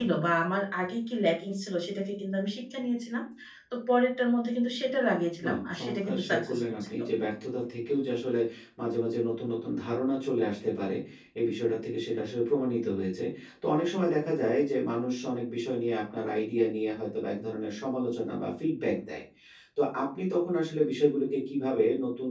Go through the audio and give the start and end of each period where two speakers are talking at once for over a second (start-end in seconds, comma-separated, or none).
5.5-6.9